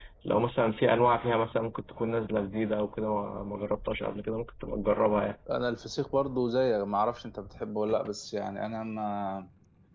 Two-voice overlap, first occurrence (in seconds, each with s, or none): none